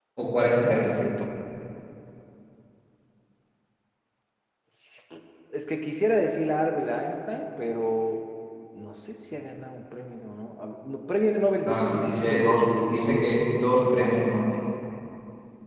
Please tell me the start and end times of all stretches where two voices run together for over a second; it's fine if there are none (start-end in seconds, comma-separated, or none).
11.7-13.1